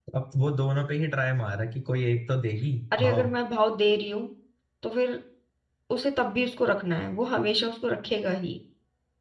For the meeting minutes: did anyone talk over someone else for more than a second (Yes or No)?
No